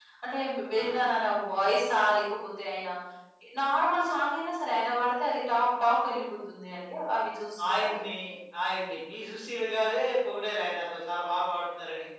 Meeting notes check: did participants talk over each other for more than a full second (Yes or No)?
No